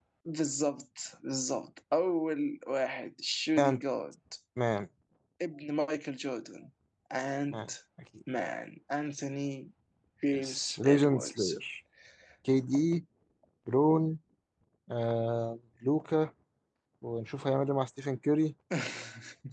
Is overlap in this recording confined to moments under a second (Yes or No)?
No